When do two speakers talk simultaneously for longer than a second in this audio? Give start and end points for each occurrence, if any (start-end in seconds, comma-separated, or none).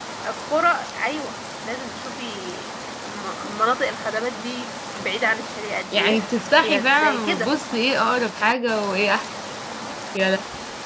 5.9-7.5